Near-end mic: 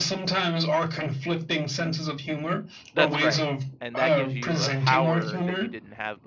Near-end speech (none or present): present